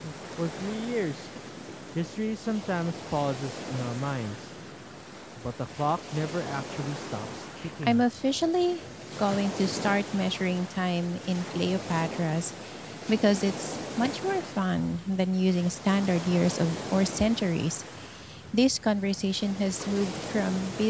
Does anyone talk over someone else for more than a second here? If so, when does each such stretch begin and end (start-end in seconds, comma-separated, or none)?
none